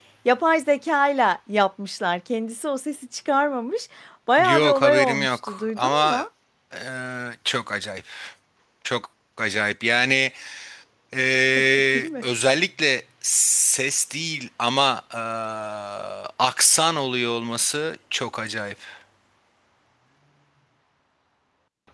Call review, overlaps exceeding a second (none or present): present